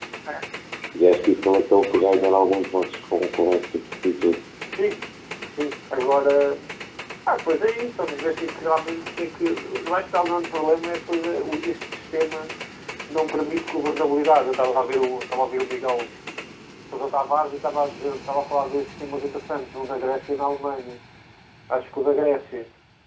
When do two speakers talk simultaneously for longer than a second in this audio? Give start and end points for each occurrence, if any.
none

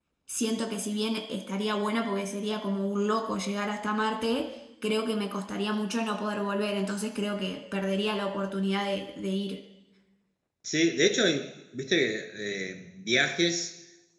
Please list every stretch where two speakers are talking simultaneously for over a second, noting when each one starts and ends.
none

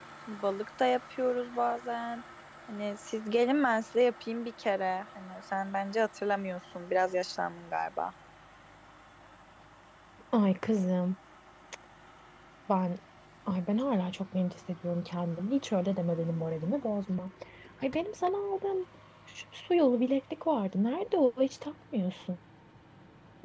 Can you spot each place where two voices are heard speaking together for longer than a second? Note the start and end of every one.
none

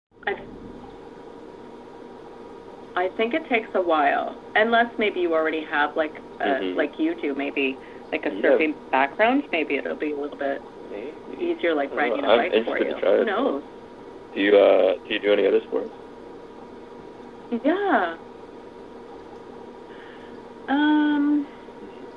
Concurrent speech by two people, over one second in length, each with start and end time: 11.4-13.6

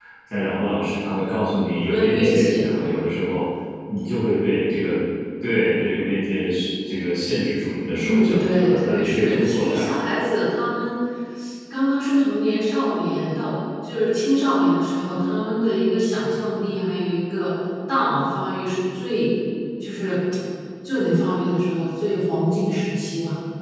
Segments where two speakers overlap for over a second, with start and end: 1.7-3.0, 7.9-9.9

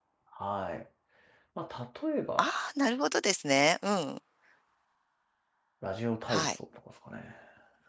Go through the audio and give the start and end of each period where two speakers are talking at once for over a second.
none

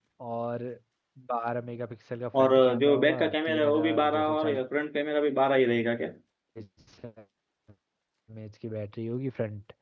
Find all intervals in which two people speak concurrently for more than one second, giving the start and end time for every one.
2.4-4.3

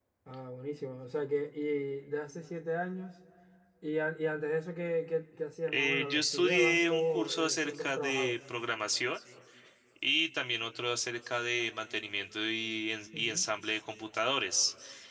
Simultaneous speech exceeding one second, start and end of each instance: 5.7-8.4

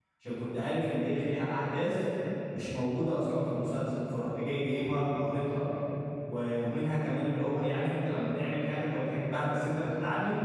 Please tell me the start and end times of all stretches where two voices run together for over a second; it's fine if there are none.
none

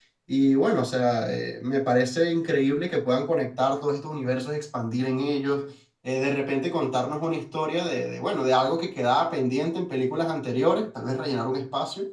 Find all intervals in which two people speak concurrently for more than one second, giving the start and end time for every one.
none

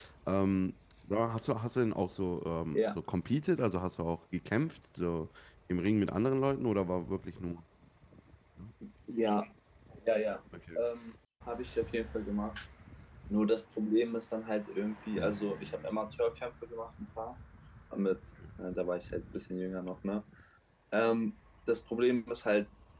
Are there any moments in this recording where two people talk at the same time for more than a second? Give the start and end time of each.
none

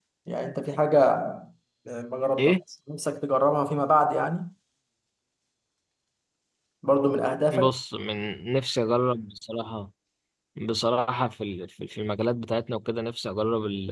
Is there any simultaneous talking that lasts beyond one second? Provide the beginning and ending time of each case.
none

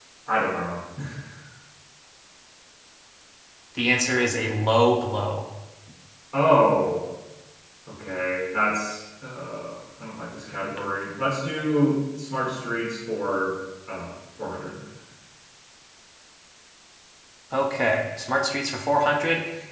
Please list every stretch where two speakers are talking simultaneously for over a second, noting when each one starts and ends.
none

